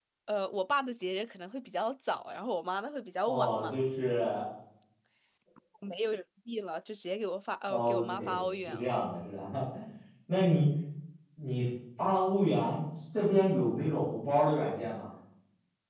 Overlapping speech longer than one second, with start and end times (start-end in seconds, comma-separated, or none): 7.7-9.0